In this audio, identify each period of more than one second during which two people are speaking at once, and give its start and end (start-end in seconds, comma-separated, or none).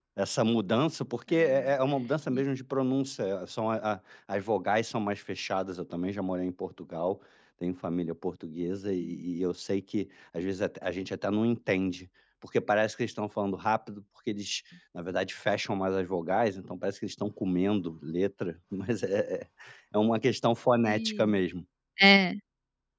none